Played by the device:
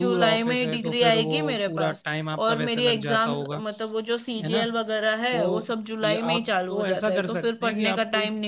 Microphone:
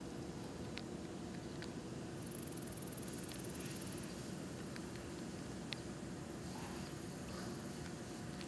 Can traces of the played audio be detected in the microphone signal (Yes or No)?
No